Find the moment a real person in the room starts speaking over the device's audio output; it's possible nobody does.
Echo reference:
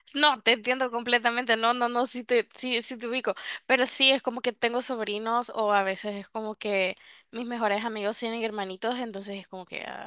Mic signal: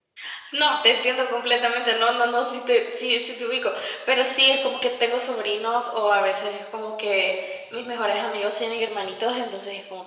none

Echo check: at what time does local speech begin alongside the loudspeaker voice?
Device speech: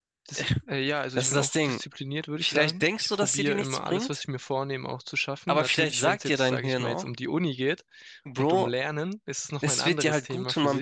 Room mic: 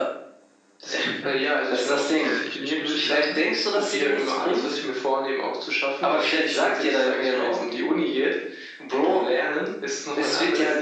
1.1 s

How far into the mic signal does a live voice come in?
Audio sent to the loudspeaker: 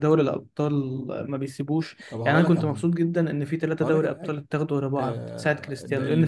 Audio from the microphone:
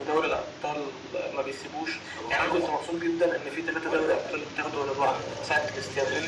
none

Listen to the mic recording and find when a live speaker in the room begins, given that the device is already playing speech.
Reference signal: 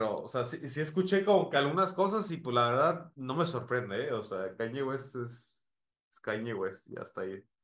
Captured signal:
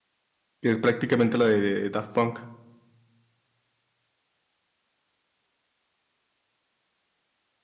0.6 s

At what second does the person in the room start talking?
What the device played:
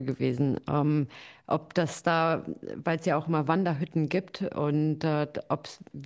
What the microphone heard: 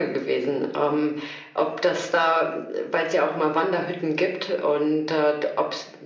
none

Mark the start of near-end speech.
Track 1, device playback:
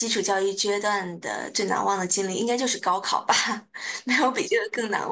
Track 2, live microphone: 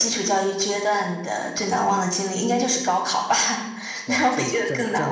4.0 s

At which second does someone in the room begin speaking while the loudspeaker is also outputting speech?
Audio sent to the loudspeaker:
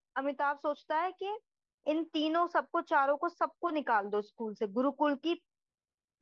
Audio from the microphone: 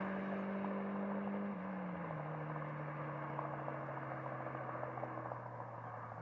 none

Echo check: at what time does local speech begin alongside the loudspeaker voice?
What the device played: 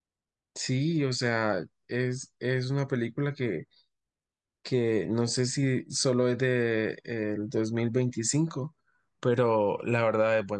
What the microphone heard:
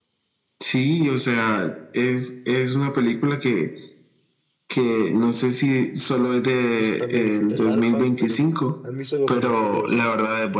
6.7 s

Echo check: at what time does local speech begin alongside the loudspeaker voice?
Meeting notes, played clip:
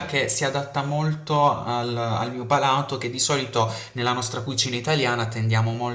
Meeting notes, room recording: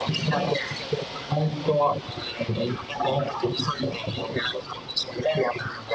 none

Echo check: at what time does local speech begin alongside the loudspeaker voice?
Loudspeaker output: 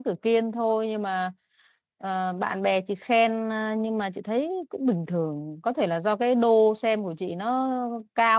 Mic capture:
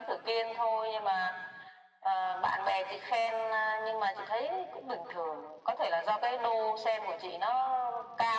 none

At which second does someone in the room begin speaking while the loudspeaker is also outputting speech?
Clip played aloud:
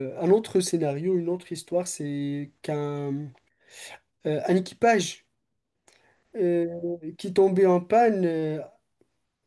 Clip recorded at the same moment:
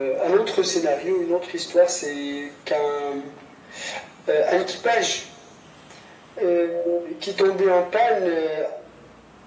none

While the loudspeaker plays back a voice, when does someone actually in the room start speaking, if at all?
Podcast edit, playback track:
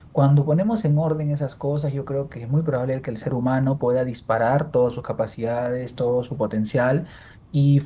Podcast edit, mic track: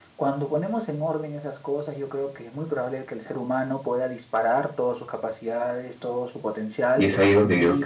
7.0 s

